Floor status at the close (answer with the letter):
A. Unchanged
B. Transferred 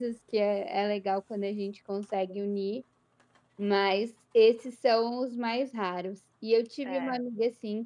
A